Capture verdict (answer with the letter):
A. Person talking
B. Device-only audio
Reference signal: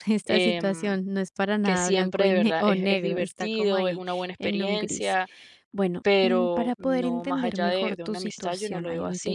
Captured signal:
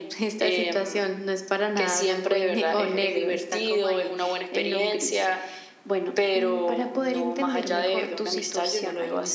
B